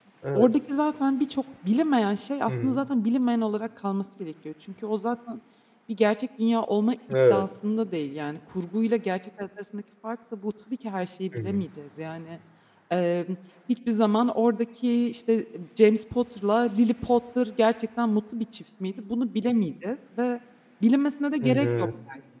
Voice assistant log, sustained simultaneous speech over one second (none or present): none